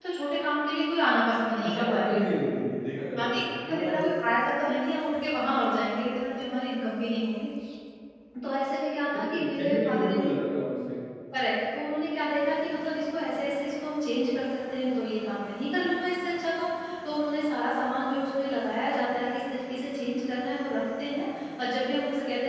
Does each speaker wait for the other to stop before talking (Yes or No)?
No